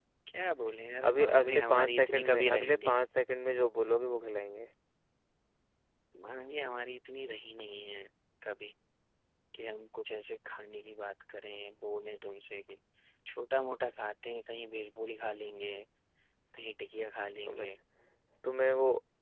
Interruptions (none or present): present